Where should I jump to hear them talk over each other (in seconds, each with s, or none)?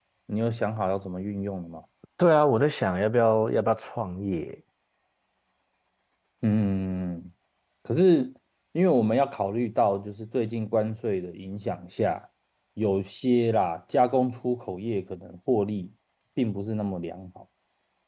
none